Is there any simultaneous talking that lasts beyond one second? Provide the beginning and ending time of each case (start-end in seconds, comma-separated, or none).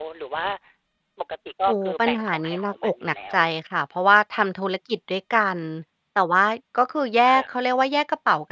1.7-3.4